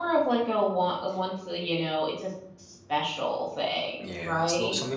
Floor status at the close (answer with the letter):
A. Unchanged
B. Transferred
B